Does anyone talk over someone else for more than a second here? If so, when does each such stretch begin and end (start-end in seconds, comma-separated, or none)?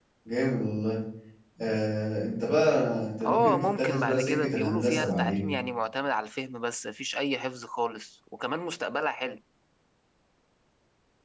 3.2-5.5